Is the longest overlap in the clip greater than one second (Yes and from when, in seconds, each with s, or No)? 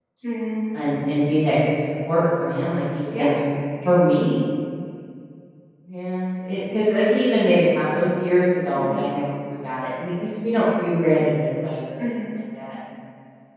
No